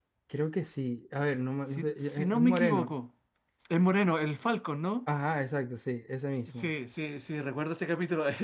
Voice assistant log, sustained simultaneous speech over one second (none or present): present